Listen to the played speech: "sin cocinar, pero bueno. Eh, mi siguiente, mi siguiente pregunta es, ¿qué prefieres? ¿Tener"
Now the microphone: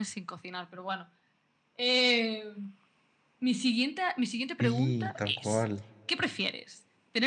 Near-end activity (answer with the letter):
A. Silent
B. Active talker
B